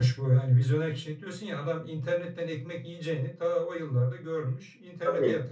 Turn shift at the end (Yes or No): Yes